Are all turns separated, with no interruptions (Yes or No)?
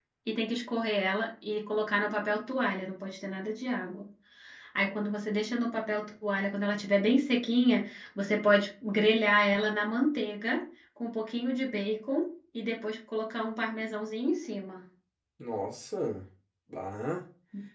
Yes